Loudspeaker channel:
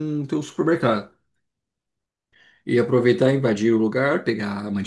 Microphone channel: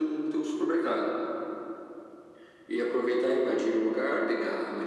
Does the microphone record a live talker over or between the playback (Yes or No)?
No